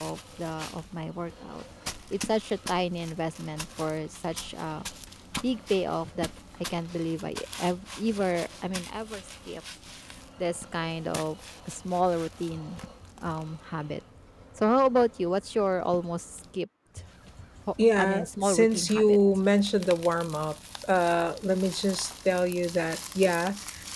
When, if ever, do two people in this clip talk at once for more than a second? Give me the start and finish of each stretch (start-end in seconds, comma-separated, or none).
18.0-19.2